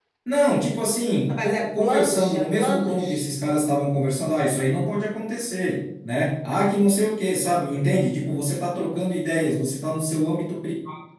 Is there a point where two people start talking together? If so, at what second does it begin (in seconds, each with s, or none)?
1.3 s